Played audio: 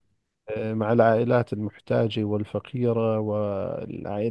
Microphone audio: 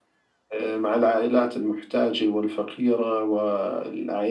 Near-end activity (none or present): none